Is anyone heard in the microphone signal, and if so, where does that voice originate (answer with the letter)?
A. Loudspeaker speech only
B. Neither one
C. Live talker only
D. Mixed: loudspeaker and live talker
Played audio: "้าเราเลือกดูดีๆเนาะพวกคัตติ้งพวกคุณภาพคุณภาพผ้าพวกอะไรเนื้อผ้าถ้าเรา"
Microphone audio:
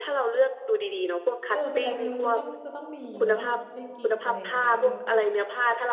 D